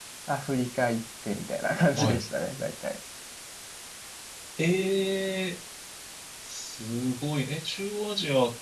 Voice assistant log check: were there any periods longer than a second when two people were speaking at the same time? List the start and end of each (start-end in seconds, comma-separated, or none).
none